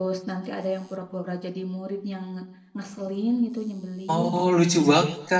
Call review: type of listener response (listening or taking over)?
taking over